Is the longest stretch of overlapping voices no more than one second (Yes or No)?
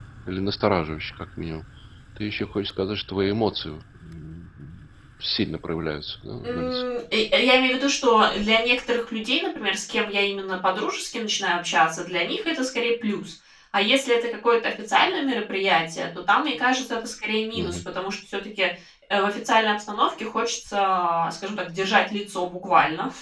Yes